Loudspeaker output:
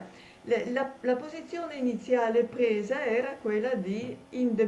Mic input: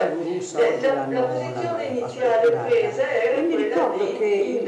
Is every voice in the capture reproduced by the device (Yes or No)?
No